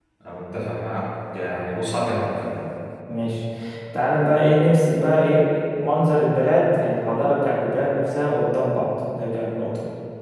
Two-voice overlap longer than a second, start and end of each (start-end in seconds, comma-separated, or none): none